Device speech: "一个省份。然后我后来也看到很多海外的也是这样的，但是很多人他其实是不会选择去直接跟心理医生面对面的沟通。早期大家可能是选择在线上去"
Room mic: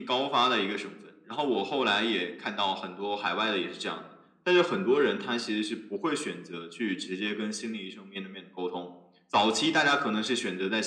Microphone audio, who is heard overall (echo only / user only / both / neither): echo only